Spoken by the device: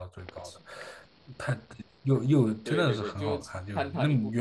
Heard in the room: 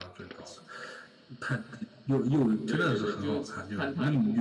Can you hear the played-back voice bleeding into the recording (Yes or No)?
Yes